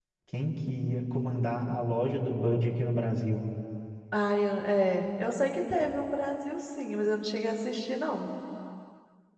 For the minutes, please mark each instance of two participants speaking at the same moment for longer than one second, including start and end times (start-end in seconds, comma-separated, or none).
none